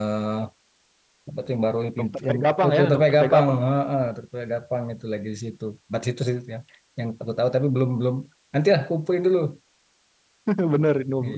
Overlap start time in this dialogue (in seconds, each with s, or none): 2.0 s